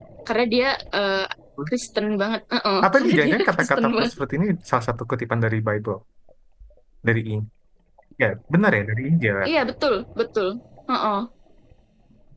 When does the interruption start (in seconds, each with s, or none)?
2.8 s